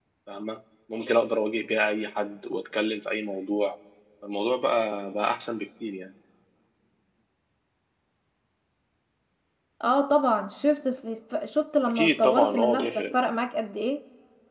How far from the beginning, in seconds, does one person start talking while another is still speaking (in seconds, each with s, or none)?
11.8 s